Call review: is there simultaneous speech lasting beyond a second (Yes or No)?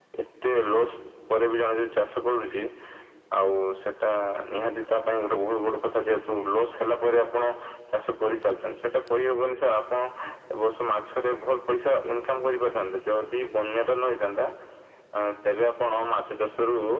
No